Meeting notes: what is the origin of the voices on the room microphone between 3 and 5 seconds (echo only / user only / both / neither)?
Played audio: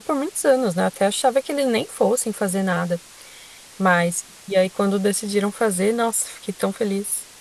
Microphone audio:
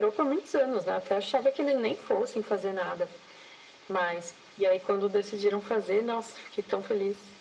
echo only